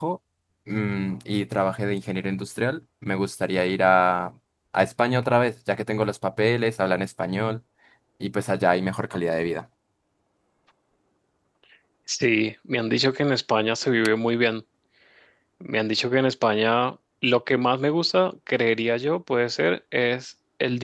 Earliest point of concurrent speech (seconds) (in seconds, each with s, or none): none